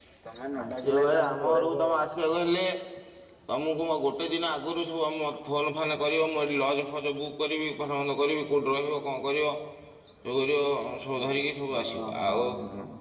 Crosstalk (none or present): present